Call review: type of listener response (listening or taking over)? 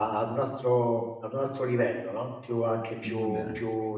listening